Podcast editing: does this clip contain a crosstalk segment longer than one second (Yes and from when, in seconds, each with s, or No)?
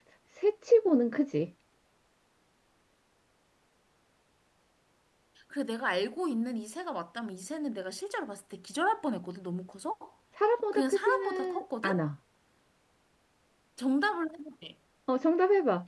Yes, from 10.7 s